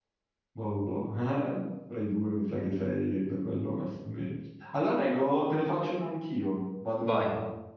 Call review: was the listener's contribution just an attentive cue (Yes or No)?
Yes